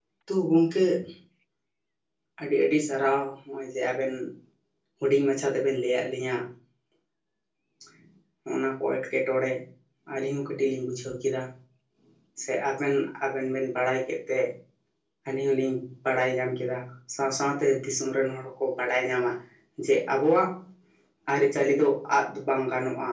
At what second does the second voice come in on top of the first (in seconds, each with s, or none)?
none